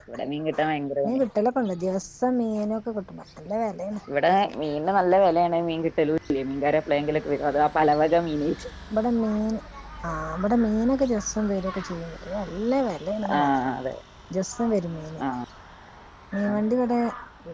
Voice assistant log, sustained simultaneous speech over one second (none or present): none